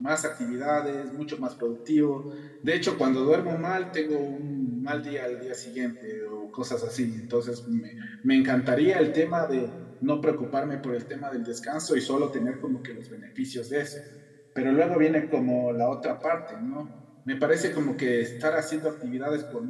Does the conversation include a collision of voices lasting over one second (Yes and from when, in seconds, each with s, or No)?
No